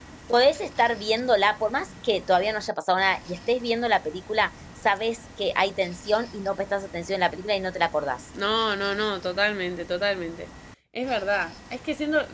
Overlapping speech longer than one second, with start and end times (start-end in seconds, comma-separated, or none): none